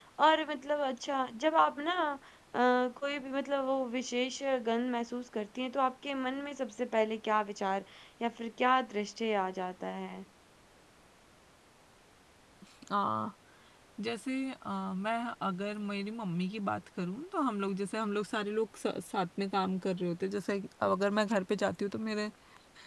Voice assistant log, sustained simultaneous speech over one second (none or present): none